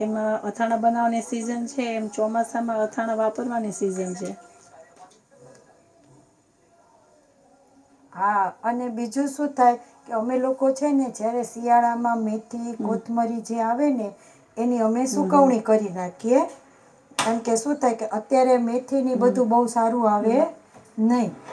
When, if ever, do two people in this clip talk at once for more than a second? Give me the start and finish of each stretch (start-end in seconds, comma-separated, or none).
none